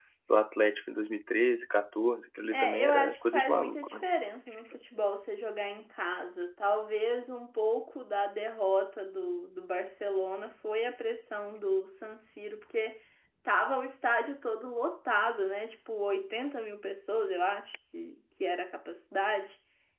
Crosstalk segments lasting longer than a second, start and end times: 2.5-3.9

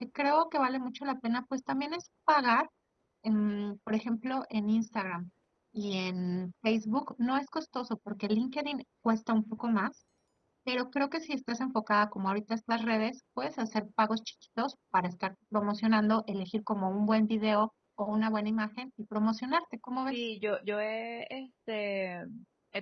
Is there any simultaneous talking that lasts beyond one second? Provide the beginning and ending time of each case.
none

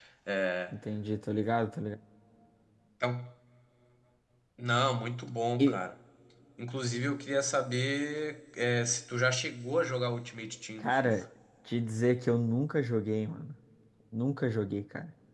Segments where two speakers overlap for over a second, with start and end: none

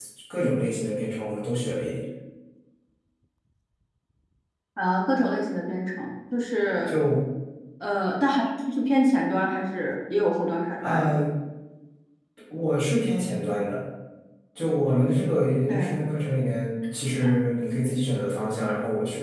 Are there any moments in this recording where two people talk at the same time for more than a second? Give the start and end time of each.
none

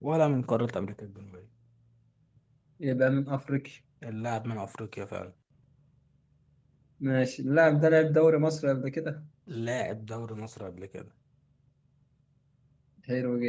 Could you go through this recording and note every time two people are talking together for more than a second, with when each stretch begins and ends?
none

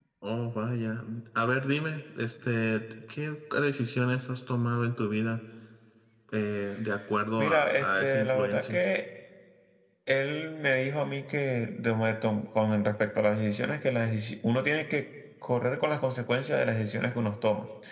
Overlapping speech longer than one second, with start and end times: 7.4-8.8

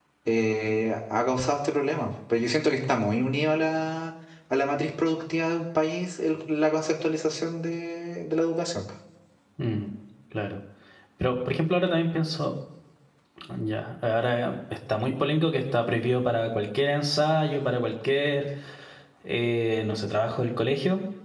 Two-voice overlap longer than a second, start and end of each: none

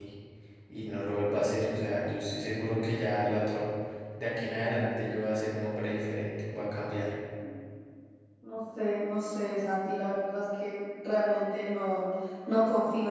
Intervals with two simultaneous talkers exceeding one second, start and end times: none

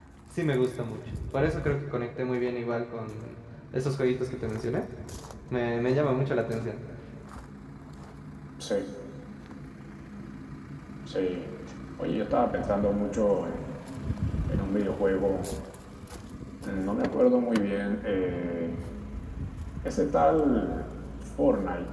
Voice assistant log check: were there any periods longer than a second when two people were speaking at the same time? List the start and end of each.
none

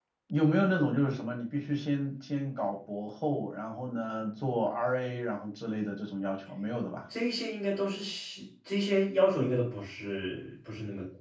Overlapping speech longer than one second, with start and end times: none

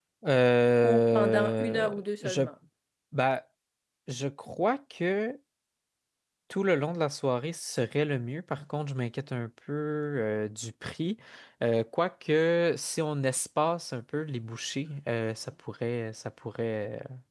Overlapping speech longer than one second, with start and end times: 0.8-2.4

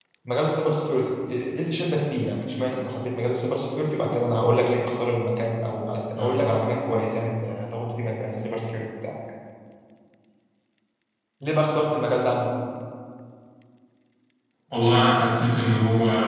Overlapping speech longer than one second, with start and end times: none

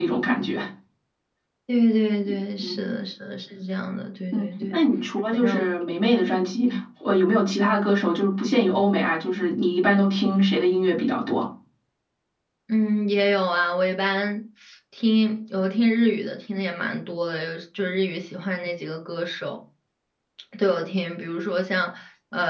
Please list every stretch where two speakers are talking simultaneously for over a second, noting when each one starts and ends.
none

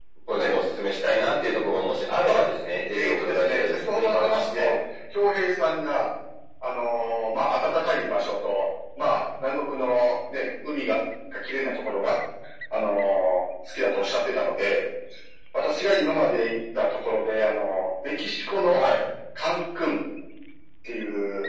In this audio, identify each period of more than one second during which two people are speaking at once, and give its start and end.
2.9-4.7

